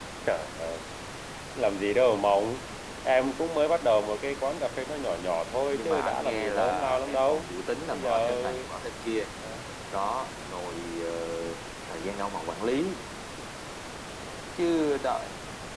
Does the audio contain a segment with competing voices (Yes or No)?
Yes